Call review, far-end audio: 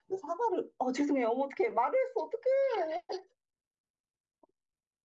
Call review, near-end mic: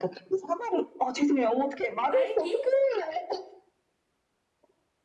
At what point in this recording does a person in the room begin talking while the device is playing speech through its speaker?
2.1 s

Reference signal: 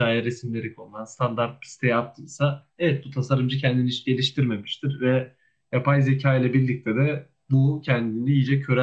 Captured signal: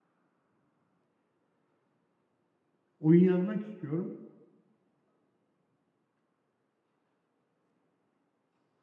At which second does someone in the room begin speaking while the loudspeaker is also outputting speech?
3.0 s

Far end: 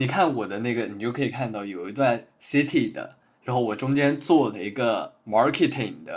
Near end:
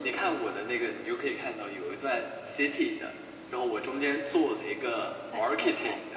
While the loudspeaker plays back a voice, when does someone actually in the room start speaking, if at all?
5.2 s

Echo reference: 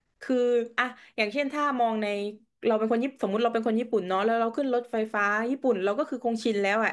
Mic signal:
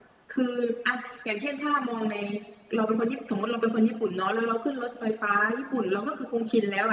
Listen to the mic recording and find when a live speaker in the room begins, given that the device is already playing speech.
none

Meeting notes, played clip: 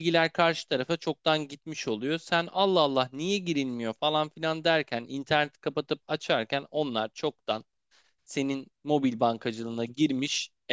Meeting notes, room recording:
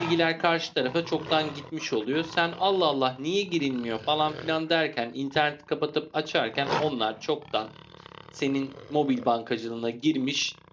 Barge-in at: none

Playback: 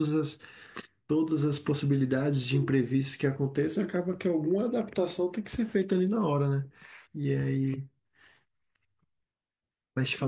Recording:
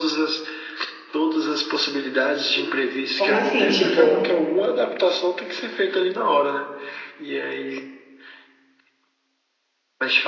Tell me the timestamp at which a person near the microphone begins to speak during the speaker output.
3.1 s

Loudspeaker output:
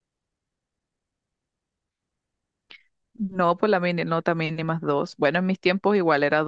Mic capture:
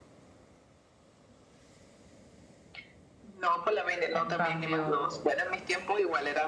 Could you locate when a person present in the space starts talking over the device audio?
4.1 s

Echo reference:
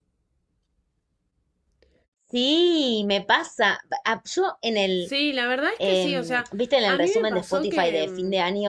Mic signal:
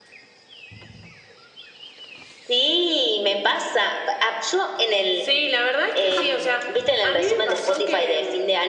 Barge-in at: none

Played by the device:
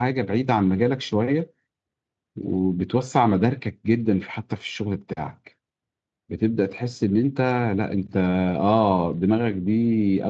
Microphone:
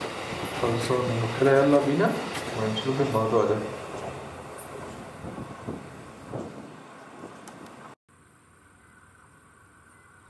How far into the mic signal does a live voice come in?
0.6 s

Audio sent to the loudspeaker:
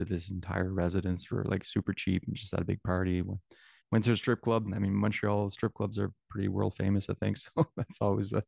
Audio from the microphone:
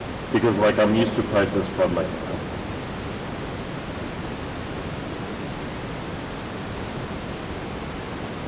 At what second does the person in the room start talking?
0.3 s

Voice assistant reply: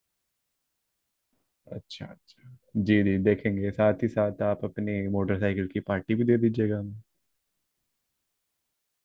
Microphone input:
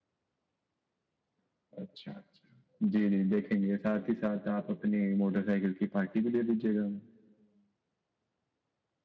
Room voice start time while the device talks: none

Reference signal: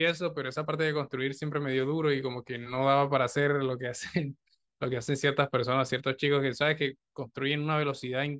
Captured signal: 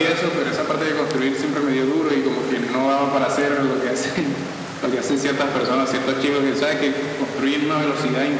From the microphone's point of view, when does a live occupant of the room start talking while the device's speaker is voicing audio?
none

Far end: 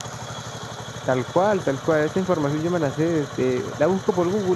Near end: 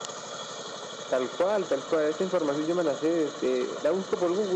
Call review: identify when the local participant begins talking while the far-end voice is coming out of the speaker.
none

